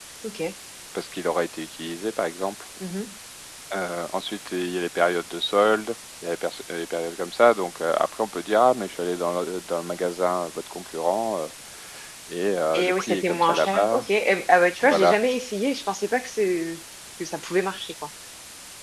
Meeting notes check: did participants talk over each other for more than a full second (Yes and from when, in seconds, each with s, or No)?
Yes, from 12.8 s